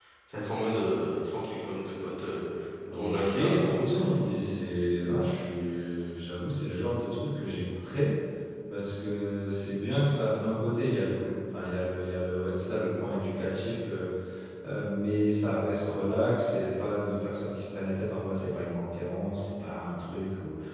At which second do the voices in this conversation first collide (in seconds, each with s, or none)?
2.9 s